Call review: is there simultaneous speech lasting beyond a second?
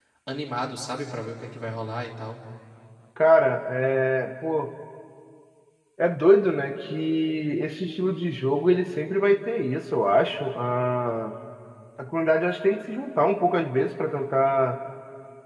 No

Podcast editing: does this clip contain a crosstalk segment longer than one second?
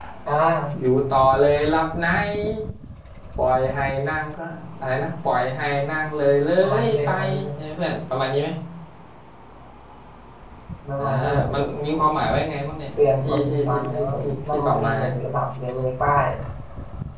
Yes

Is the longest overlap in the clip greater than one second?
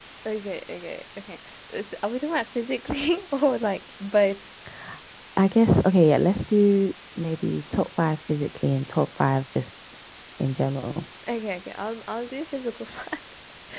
No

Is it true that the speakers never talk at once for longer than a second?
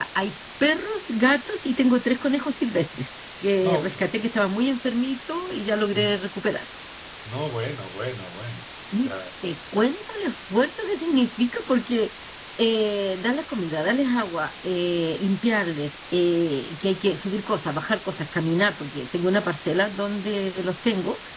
Yes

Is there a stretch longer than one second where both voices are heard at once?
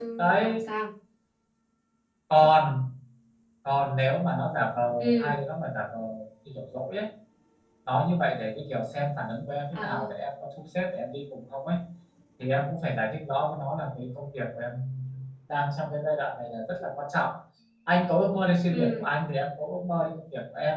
No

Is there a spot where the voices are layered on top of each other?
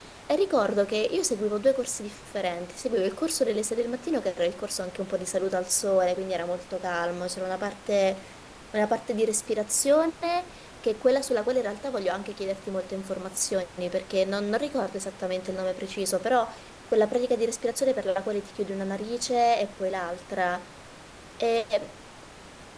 No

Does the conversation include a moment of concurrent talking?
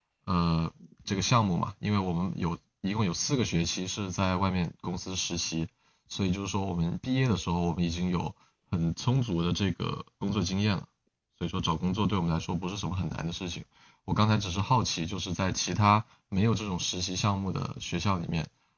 No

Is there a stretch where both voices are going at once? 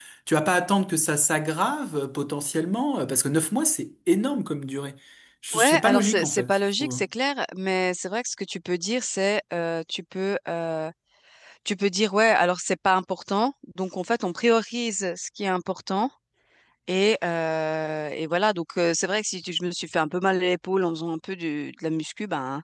Yes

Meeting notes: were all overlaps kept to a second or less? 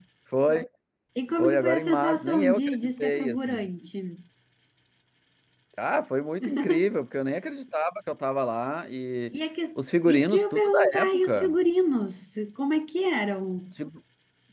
No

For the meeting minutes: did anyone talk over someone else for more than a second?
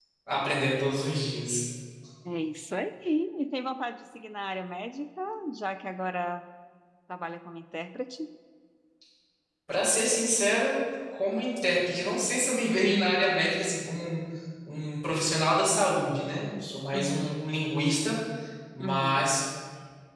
No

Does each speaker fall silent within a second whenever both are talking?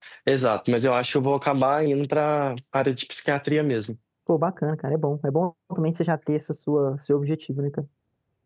Yes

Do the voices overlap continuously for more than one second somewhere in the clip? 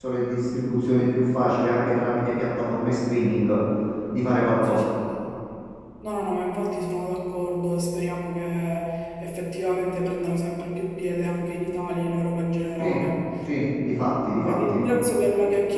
No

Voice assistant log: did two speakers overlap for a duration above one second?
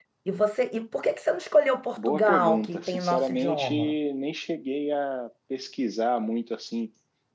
Yes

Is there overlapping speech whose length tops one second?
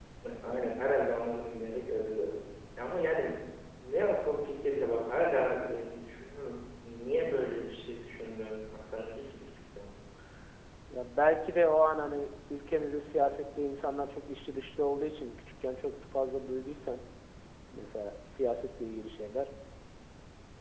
No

